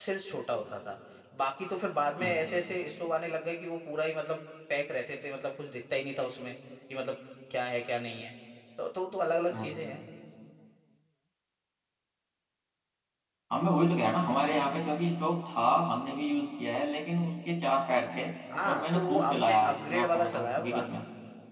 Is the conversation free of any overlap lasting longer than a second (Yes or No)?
No